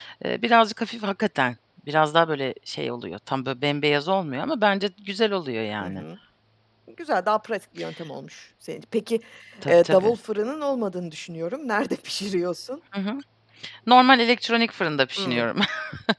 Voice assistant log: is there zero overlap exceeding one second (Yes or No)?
Yes